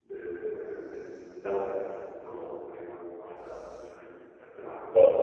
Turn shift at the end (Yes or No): Yes